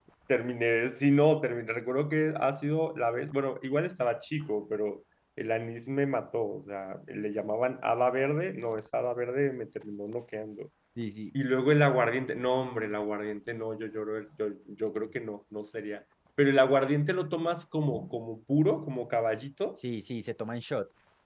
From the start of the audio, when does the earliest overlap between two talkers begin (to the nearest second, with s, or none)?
none